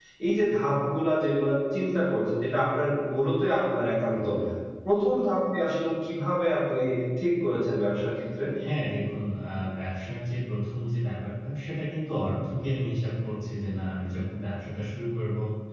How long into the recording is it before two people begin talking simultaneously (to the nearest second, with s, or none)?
none